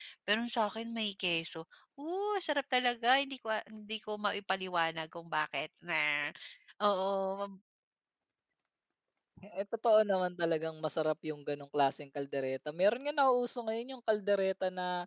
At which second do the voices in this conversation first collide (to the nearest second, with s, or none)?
none